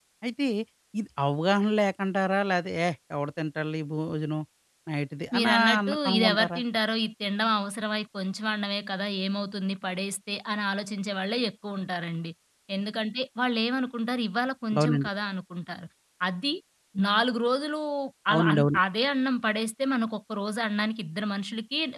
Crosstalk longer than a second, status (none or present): present